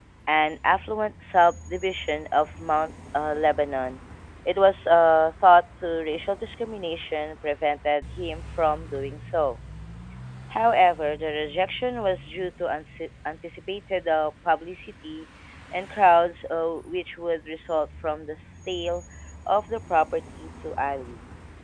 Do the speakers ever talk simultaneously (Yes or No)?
No